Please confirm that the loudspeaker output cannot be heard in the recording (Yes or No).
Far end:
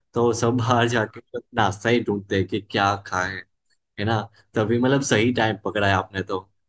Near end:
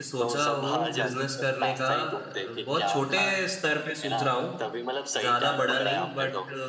No